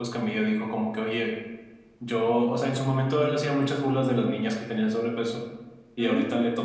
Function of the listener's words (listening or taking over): listening